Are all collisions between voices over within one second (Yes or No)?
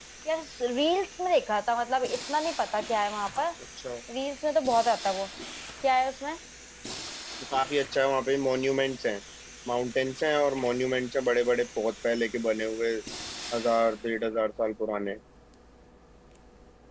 Yes